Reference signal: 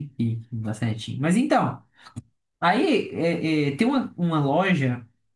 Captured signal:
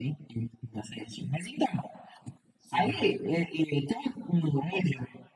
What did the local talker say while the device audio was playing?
sim.

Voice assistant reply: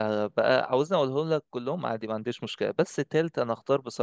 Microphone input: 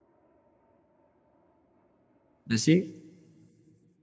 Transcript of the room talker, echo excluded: ماشي

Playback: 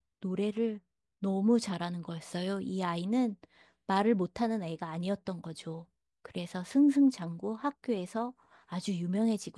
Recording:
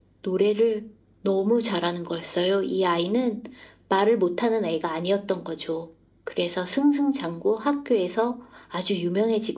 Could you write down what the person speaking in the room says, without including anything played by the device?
none

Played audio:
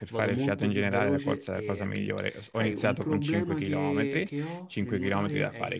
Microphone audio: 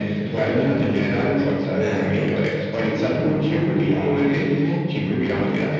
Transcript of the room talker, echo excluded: Certo,

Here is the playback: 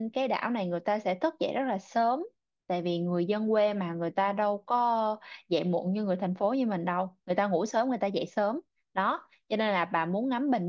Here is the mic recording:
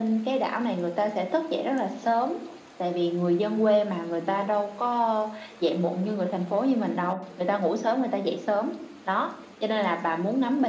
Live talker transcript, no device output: none

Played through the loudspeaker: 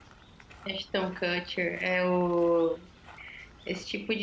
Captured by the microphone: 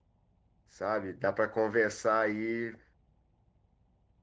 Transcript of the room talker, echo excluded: sabe, dá para conversar aí

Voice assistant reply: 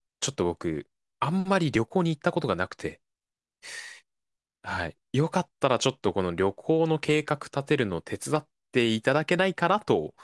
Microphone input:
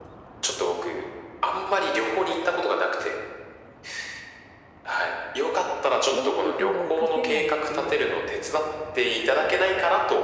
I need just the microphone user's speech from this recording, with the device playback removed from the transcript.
読めるけど書けないっていう、

